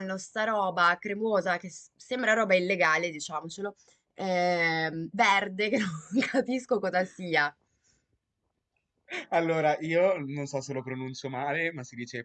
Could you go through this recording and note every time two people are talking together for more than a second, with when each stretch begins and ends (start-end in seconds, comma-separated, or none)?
none